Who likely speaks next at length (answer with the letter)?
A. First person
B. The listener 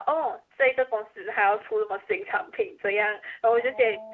A